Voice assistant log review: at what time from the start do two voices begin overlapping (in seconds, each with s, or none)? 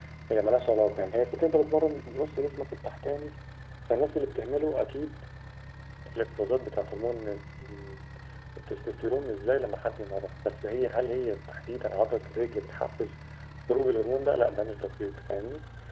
none